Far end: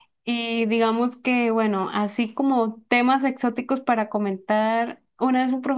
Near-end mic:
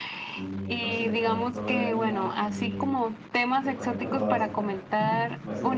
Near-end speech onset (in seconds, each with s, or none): 0.3 s